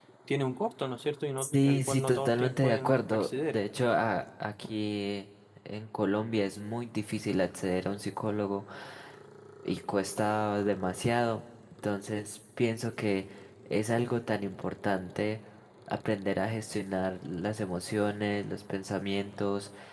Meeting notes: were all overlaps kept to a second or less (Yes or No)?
No